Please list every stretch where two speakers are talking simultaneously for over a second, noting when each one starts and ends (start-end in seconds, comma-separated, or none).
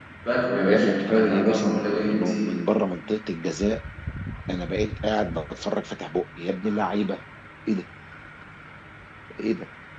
0.7-2.5